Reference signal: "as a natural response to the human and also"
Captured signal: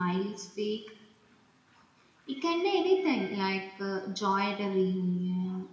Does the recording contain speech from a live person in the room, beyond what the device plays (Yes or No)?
Yes